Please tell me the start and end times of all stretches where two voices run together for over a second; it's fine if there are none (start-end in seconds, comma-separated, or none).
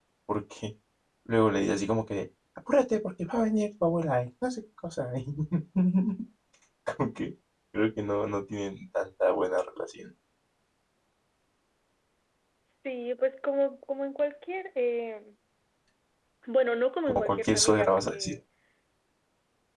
17.1-18.4